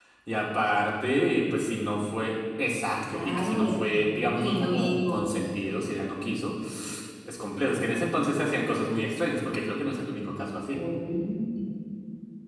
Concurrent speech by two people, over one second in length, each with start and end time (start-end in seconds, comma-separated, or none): 3.1-5.4